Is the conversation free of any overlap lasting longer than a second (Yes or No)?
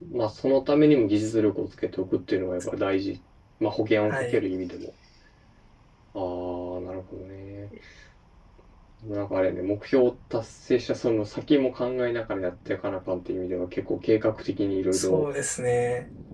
Yes